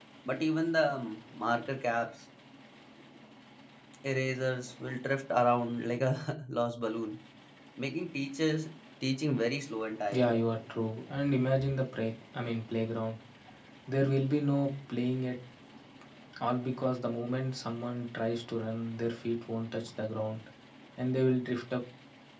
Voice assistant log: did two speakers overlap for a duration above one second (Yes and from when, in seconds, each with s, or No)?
No